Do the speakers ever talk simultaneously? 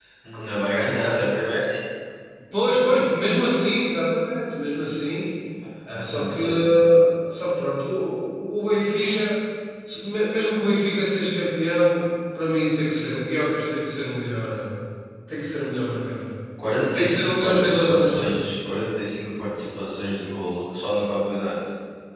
Yes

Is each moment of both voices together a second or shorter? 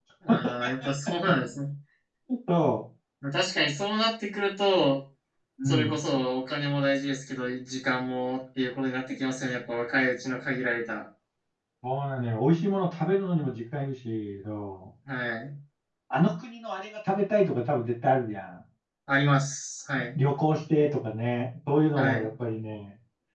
Yes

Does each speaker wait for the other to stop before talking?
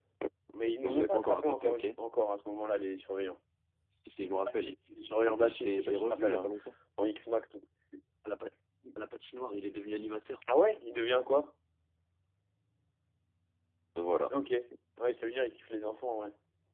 No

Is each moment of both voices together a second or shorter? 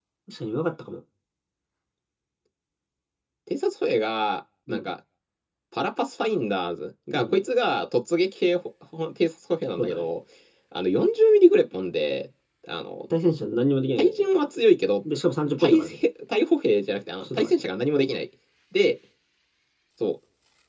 Yes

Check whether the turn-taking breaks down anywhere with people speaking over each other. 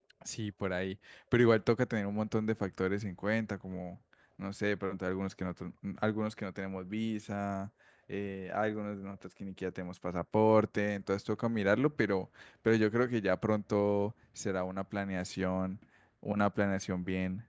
No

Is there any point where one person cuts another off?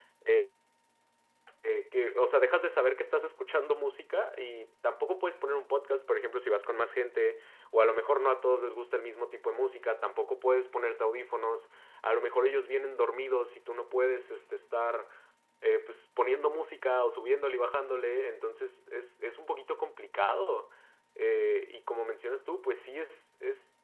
No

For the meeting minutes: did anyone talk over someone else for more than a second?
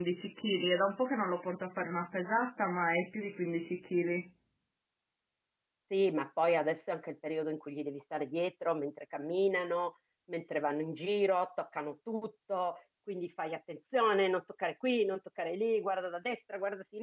No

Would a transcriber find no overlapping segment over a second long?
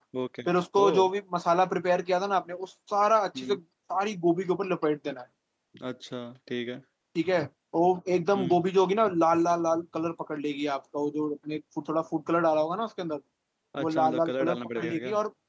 No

